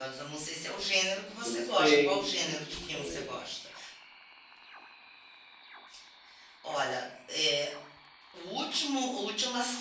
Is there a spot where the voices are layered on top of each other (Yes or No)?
Yes